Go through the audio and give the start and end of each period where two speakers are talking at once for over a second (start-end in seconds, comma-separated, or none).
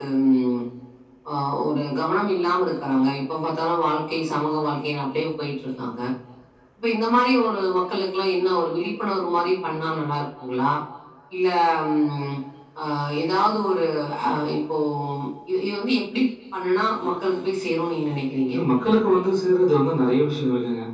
none